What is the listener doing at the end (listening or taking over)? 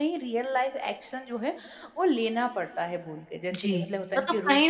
taking over